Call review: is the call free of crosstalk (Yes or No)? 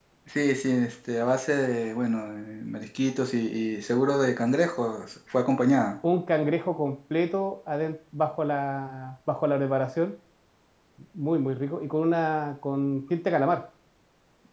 Yes